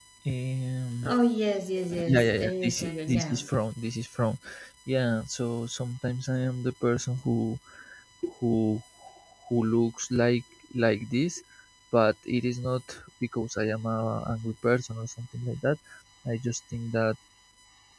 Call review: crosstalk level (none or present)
present